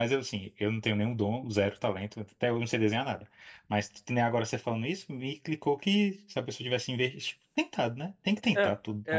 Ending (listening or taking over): taking over